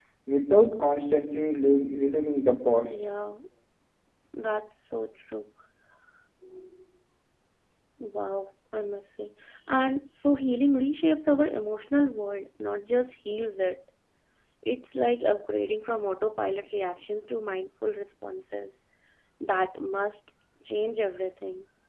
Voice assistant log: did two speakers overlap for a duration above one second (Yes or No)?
No